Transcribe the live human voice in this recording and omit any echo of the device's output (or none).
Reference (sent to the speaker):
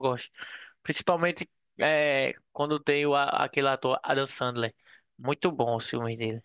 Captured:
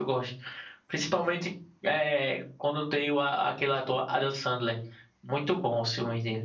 none